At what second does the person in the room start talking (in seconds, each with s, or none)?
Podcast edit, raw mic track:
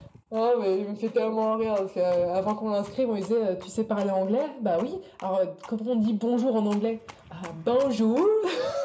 none